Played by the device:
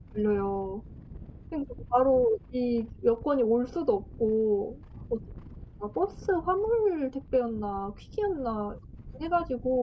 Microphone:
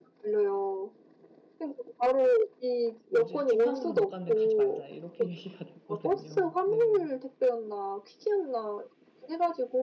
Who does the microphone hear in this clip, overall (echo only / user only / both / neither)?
both